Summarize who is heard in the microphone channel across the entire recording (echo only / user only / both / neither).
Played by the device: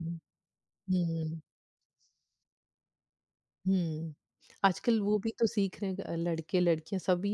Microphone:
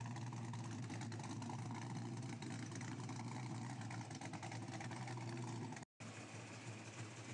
neither